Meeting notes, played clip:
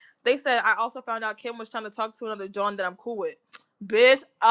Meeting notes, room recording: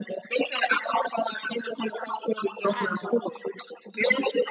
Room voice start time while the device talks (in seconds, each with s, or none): 2.6 s